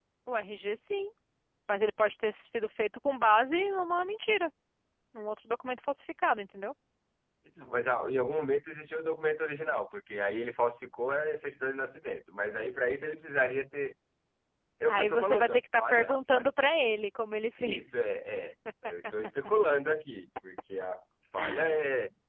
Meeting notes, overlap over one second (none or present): present